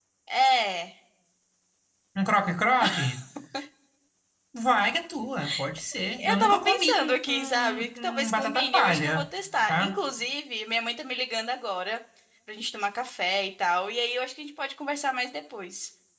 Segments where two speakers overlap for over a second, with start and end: 6.2-9.2

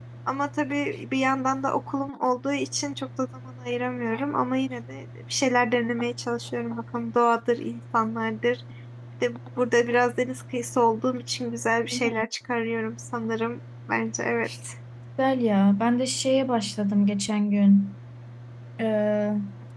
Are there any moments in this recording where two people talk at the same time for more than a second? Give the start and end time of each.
none

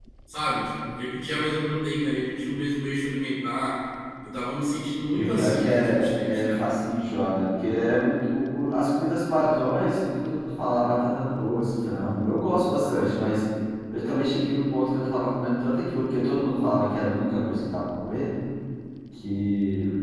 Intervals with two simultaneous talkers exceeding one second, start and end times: 5.1-6.7

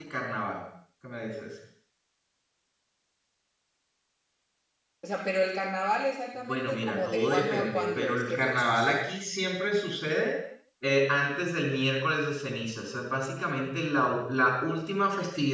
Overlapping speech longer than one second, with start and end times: 6.5-8.9

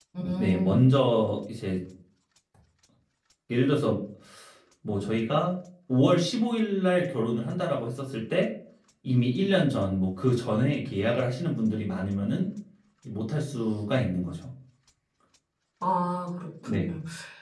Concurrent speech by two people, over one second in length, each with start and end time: none

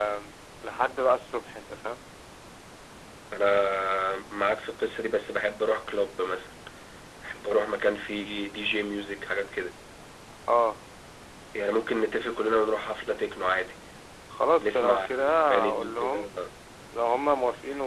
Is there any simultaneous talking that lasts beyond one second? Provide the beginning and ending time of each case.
14.6-16.3

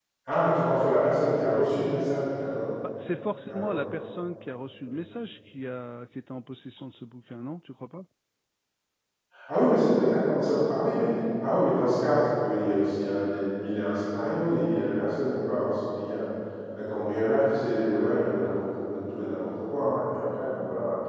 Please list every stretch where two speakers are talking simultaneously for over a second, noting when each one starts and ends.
none

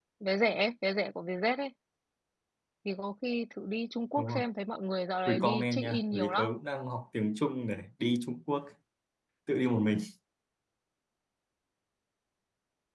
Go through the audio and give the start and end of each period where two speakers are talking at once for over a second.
5.3-6.5

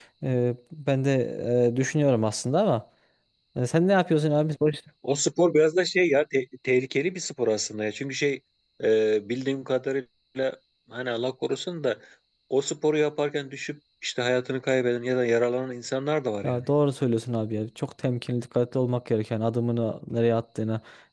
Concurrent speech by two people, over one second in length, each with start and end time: none

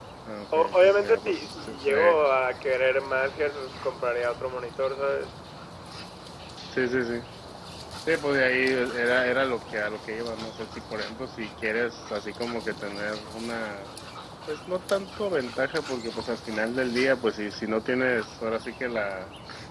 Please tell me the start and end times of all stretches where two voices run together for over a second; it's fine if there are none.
0.6-2.2

